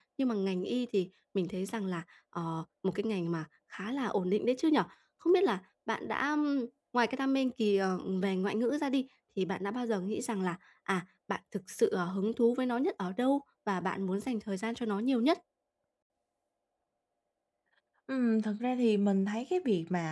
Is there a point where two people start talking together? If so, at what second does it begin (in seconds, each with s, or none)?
none